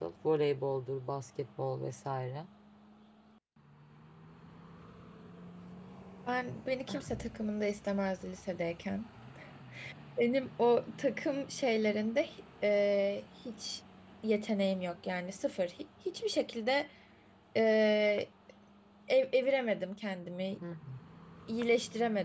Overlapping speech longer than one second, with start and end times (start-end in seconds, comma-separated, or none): none